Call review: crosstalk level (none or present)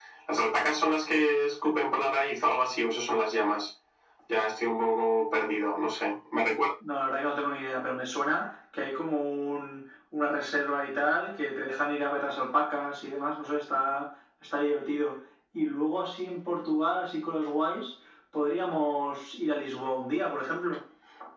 none